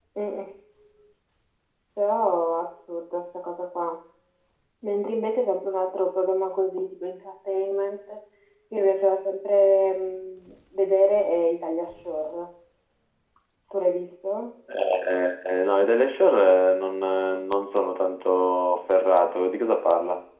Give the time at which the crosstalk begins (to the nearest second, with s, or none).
none